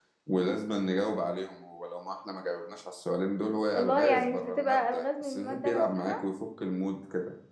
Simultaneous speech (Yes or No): Yes